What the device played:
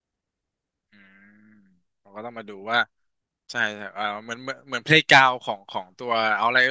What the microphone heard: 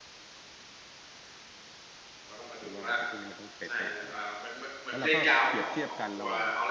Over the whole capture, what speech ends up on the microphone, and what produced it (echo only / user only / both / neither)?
both